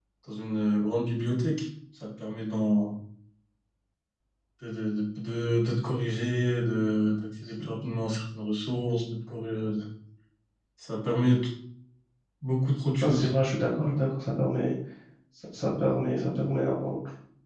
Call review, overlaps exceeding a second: none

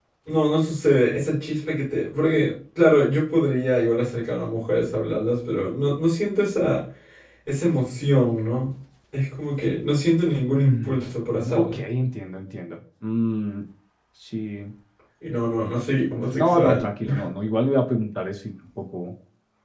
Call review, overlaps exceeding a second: present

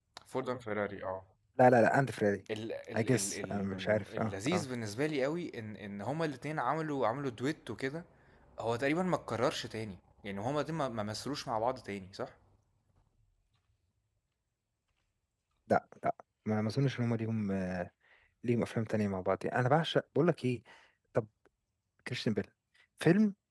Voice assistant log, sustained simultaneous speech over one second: present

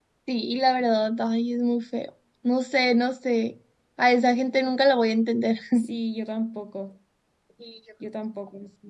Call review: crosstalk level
none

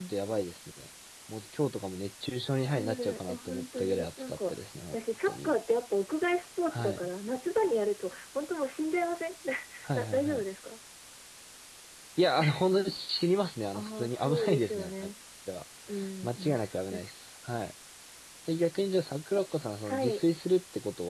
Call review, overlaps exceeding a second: present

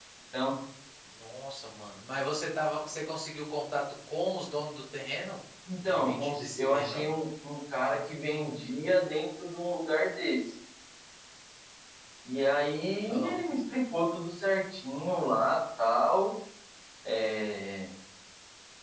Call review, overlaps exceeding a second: present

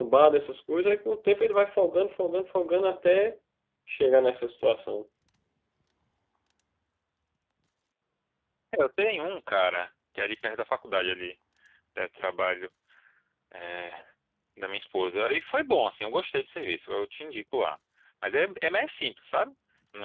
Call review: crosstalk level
none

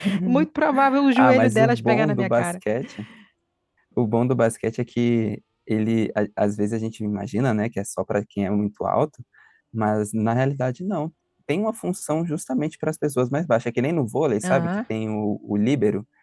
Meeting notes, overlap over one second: present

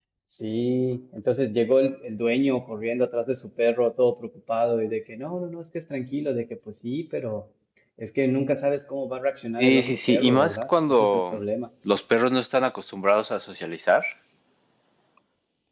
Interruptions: present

